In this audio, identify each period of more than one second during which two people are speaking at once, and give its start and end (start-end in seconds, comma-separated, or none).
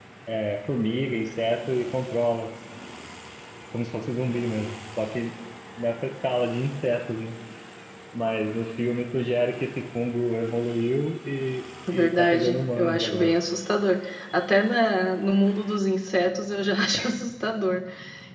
11.9-13.3